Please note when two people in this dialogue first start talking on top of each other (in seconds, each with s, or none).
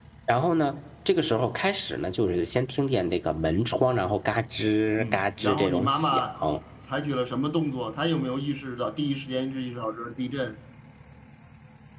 5.0 s